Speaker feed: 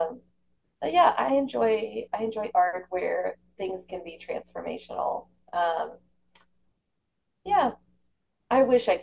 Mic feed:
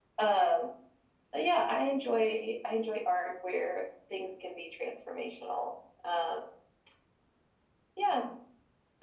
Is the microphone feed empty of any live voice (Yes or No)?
Yes